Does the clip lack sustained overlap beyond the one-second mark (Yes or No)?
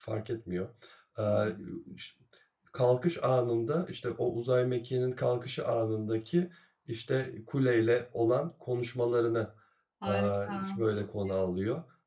No